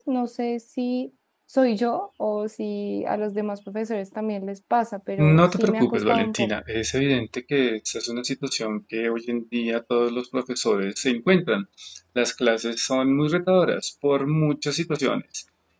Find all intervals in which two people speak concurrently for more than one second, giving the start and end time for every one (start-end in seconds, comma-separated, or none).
5.2-6.5